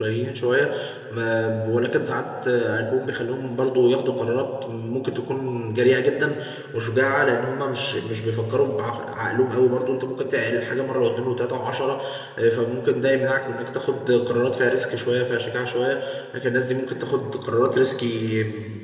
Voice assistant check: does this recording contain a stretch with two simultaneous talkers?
No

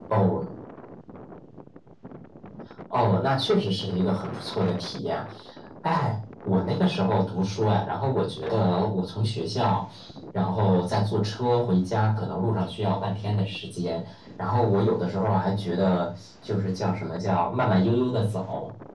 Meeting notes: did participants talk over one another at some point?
No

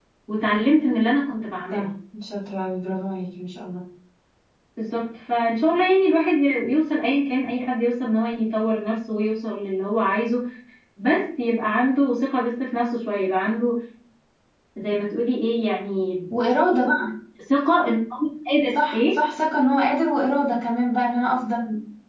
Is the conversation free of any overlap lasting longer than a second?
Yes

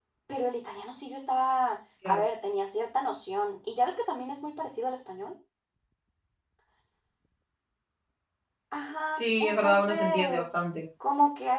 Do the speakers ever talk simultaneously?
Yes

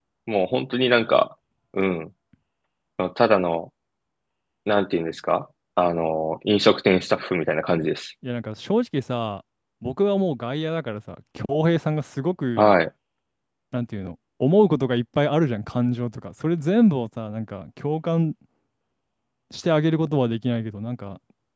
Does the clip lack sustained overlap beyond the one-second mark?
Yes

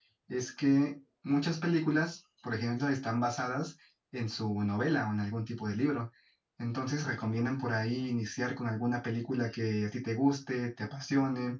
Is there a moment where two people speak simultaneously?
No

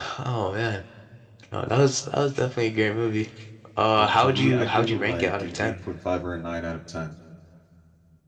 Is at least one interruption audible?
Yes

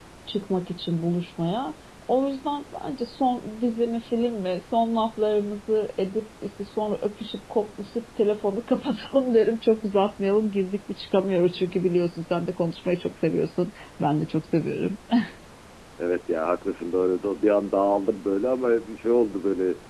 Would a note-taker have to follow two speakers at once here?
No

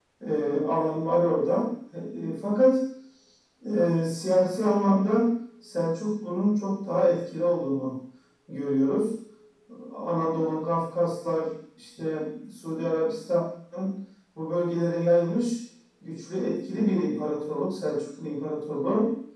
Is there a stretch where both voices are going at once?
No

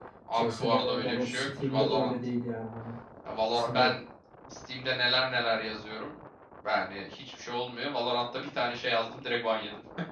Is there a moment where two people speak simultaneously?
Yes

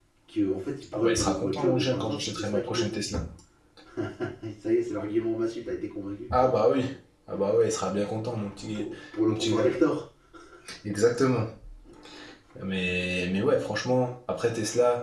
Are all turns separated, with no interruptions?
No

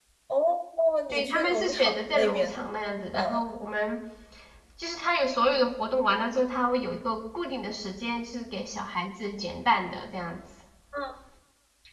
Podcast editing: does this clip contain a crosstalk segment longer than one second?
Yes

